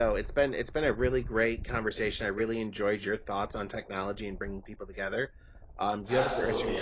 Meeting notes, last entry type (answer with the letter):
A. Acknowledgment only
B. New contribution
B